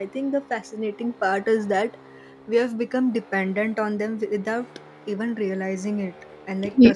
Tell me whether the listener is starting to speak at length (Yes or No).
No